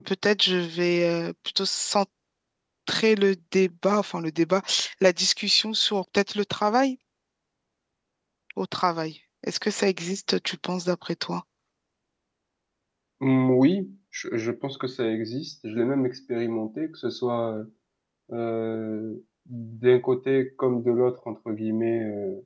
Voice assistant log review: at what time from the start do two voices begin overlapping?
none

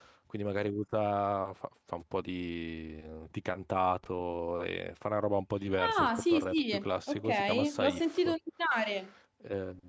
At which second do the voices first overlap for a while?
5.8 s

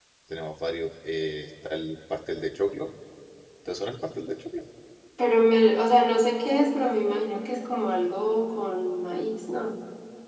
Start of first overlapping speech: none

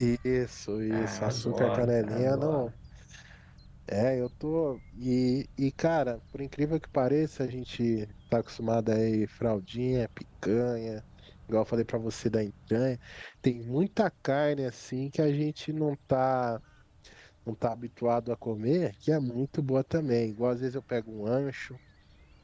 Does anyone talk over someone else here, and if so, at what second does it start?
0.9 s

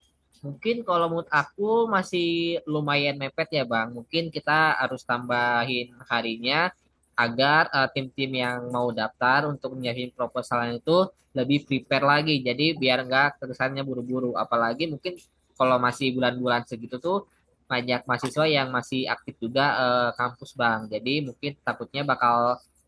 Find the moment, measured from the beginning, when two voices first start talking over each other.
none

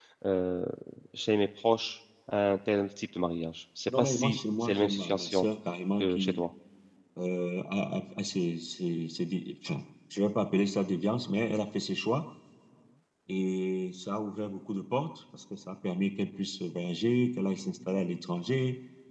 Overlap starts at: 3.9 s

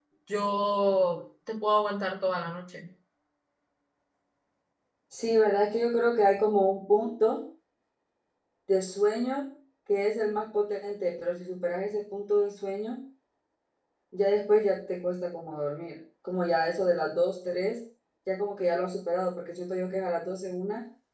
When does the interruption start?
none

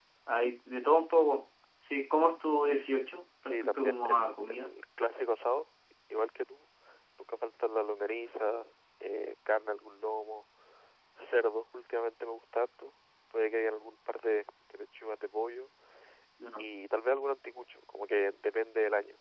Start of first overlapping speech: 3.5 s

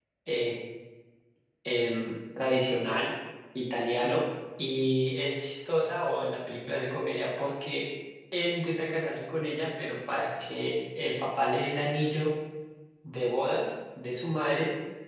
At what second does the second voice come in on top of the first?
none

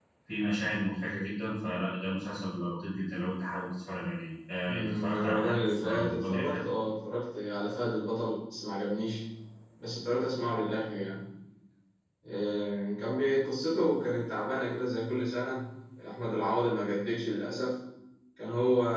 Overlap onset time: 4.7 s

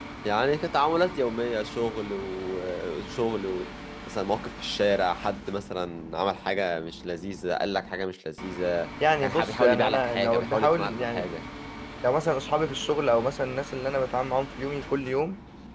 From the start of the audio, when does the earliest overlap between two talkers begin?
9.0 s

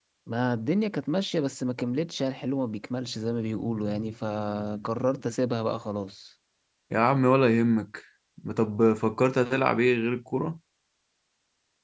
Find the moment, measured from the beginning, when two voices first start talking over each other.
none

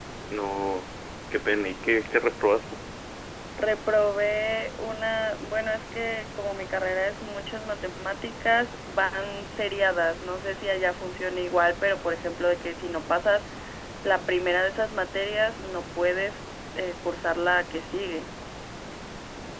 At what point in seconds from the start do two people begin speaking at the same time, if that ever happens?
none

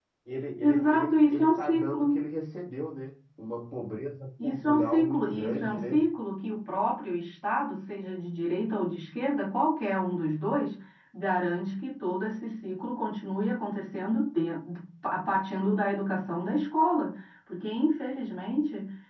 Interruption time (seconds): 0.6 s

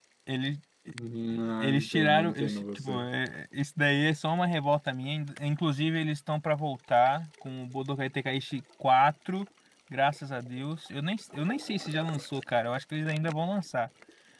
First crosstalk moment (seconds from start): 1.6 s

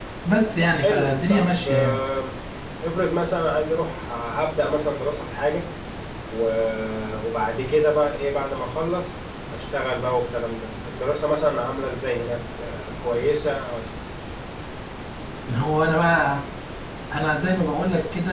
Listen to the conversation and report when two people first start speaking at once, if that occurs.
0.6 s

